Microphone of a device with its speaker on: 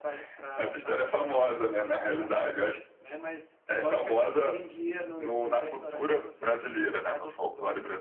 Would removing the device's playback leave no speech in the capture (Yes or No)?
Yes